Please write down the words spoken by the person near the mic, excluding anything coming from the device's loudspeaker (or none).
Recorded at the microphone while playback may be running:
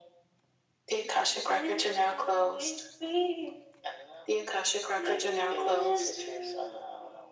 none